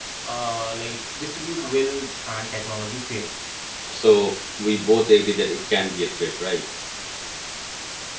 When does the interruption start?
none

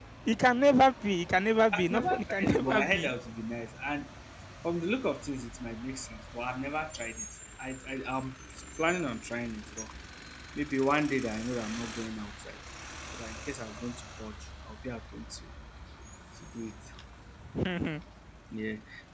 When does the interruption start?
1.7 s

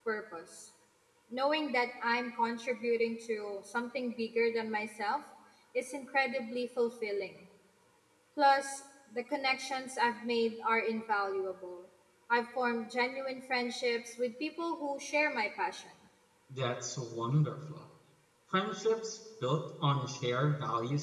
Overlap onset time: none

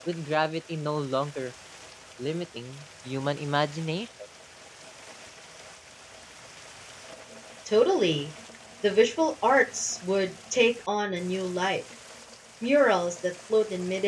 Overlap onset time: none

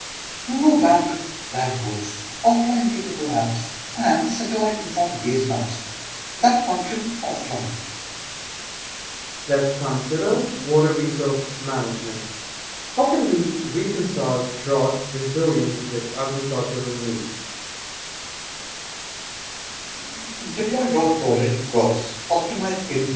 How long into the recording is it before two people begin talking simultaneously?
none

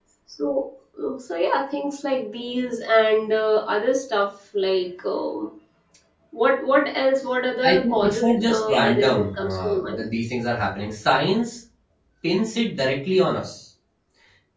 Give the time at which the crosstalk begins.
7.6 s

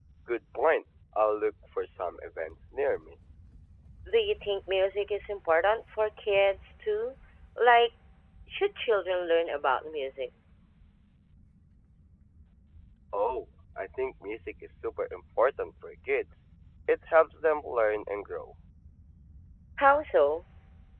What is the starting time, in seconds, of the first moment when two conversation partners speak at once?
none

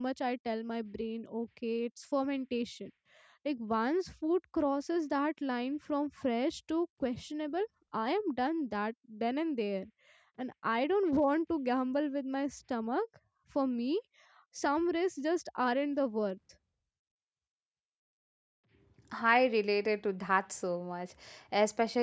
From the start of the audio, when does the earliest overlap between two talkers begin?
none

